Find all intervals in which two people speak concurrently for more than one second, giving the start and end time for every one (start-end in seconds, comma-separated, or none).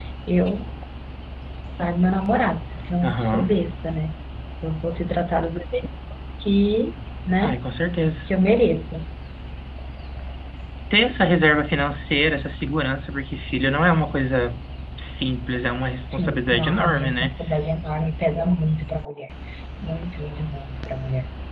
16.1-17.3